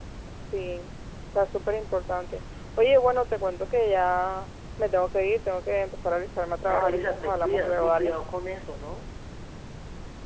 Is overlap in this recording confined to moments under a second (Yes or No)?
No